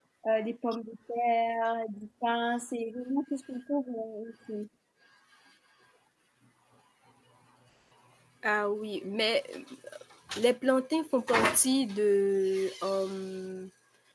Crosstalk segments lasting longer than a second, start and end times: none

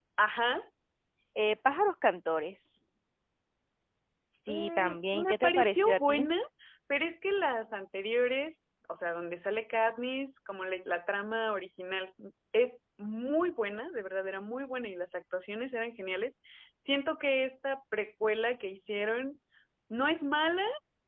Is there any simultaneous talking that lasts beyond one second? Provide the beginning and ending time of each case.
4.5-6.3

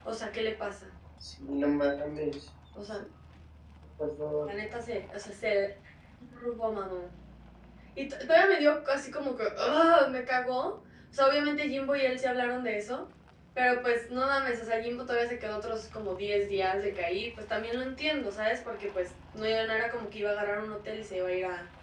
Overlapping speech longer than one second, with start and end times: none

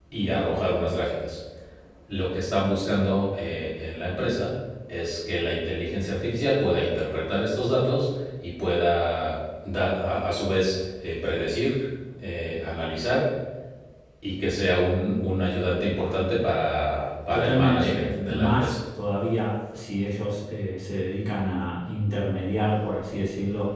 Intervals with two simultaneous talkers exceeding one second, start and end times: 17.3-18.7

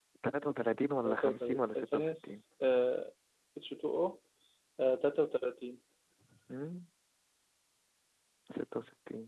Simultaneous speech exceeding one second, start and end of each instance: 1.0-2.4

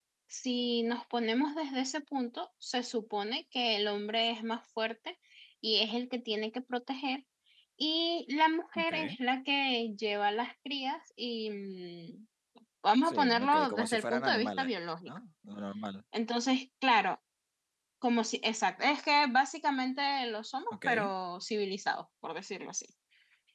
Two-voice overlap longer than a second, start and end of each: 13.0-14.7

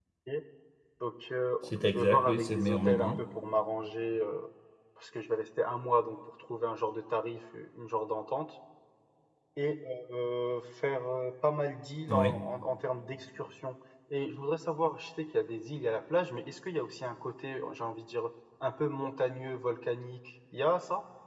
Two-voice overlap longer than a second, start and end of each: 1.8-3.1

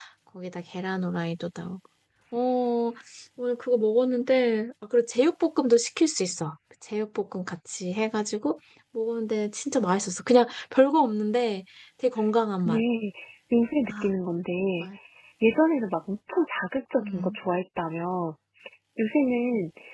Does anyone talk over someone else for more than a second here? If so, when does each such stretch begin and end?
none

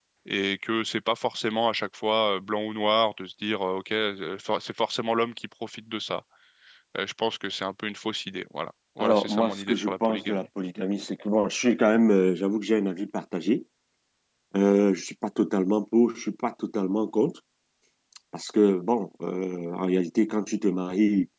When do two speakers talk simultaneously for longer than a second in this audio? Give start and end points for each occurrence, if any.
9.0-10.4

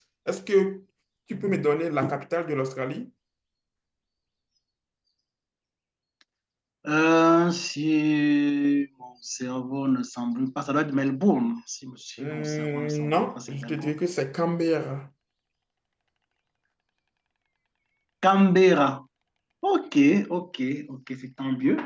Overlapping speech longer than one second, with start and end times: 12.2-14.0

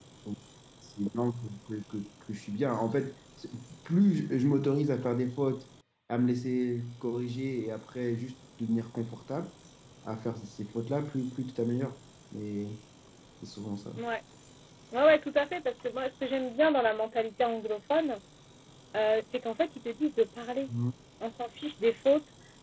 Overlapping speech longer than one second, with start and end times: none

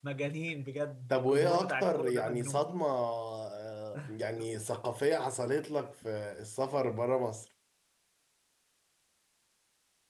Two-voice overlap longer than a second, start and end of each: 1.1-2.7

